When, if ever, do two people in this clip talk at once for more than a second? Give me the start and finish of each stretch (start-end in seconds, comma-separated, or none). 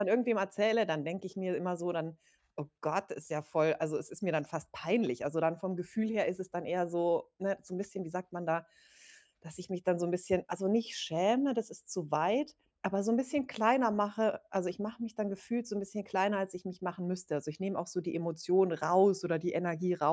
none